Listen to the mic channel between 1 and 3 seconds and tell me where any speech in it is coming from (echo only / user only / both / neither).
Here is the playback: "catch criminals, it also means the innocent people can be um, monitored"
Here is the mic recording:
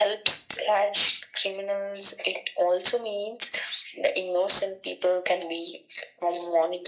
echo only